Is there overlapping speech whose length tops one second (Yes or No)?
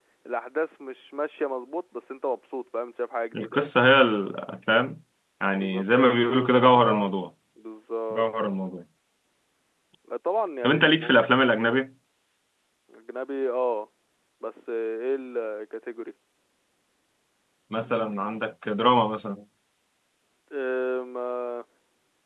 Yes